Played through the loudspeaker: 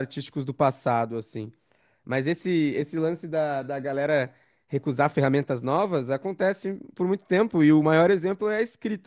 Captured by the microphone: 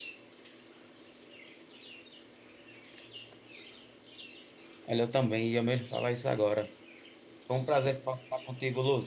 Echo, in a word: none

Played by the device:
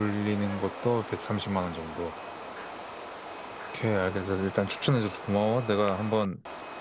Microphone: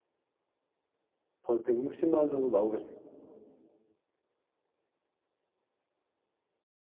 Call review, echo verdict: none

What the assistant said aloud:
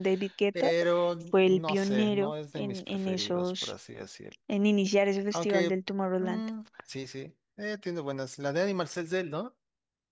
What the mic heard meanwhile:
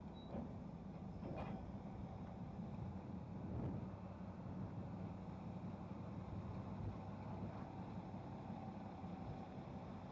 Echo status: none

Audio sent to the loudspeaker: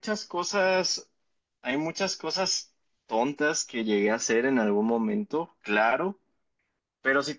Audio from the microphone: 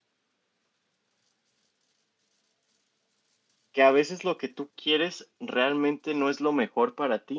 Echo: none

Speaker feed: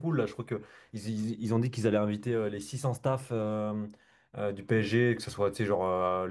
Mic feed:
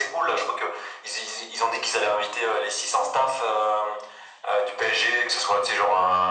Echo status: present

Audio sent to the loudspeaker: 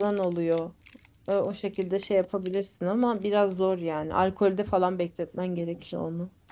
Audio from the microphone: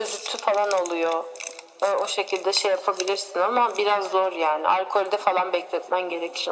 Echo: present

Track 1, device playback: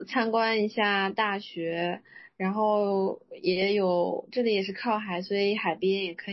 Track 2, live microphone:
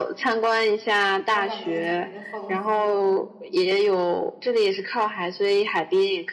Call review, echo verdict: present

